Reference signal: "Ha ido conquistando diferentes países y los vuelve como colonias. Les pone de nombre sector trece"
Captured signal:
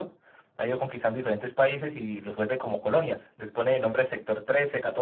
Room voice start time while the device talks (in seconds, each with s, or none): none